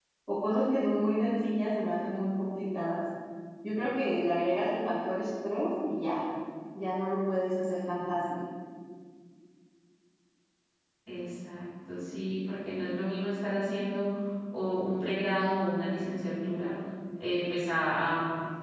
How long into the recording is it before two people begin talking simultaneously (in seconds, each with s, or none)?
none